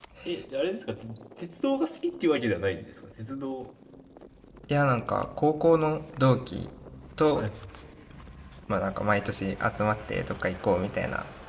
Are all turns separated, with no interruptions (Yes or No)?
Yes